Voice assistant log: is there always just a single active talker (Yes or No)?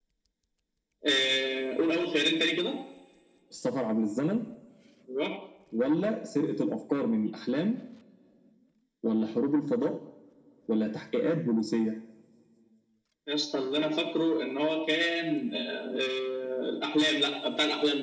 Yes